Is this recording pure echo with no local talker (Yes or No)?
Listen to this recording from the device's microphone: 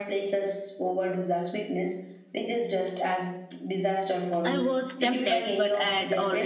No